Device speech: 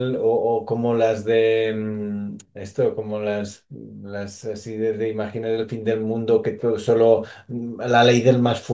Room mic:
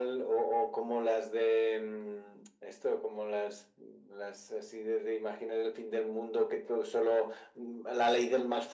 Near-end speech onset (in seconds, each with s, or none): none